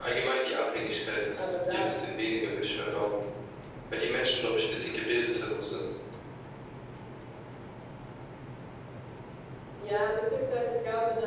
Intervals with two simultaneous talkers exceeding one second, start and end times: none

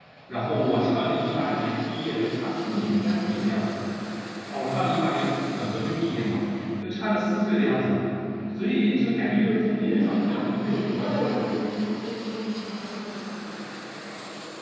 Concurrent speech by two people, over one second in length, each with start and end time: 9.6-11.6

